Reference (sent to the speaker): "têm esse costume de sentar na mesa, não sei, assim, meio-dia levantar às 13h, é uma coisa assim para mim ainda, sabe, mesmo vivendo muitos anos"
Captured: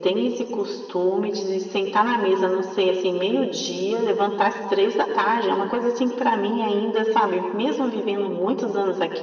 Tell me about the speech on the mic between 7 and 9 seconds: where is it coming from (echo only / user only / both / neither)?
echo only